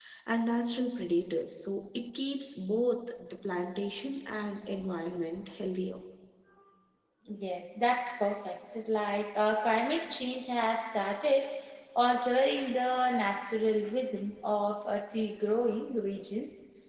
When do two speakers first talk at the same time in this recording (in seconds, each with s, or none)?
none